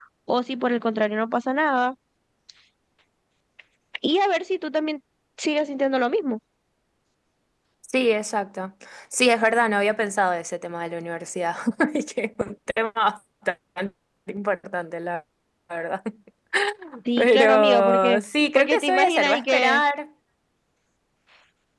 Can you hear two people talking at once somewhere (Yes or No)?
Yes